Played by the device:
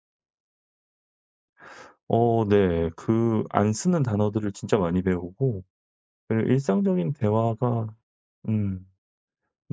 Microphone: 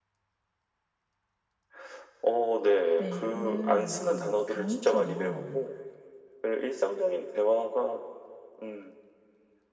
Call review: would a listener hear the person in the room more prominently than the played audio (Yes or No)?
No